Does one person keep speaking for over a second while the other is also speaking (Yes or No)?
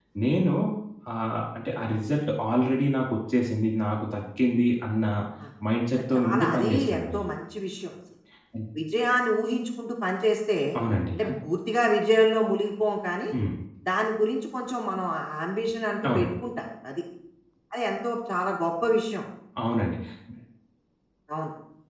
Yes